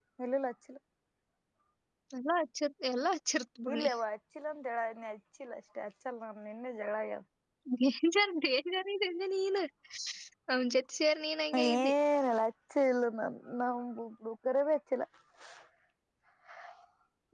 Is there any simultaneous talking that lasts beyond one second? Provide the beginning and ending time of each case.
none

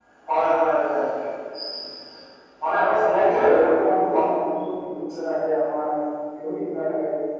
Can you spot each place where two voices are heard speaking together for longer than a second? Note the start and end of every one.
2.7-4.2

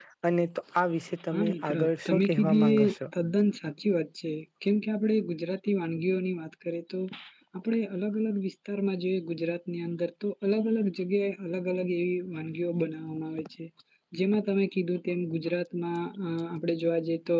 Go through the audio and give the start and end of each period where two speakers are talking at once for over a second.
1.3-3.0

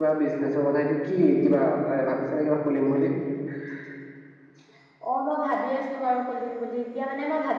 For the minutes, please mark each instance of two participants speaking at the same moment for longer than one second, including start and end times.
none

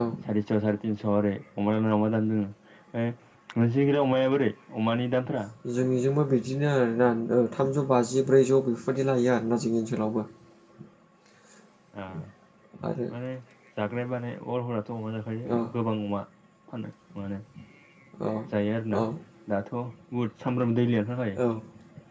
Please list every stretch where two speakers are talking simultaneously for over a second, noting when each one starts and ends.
none

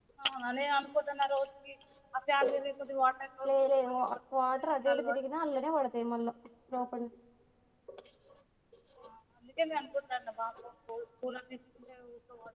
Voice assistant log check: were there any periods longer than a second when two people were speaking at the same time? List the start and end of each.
none

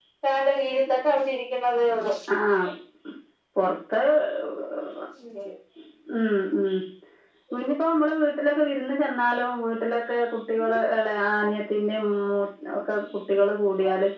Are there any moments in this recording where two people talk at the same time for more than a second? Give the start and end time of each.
none

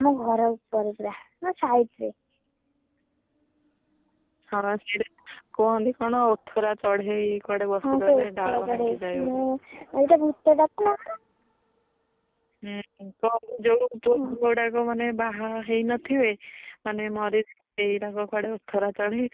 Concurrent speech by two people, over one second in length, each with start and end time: 7.8-9.4

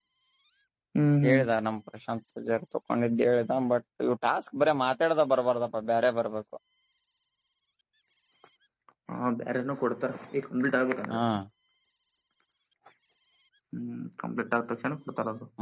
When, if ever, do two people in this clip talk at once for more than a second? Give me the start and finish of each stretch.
none

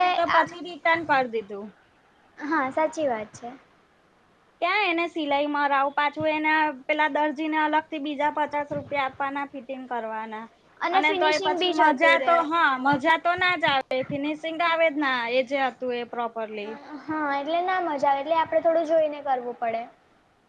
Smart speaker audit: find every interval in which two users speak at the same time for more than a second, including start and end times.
11.1-12.3

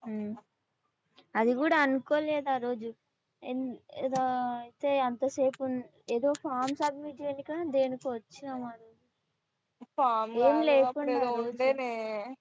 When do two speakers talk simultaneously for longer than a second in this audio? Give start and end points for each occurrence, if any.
10.4-11.7

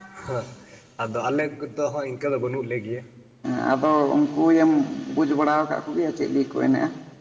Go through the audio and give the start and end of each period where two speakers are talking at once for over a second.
none

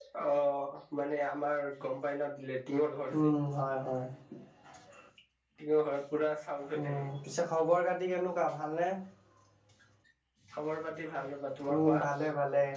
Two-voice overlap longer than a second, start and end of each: none

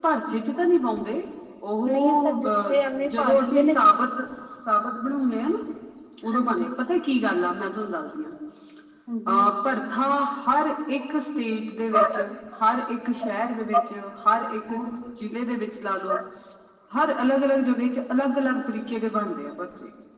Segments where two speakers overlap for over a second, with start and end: 1.9-3.7

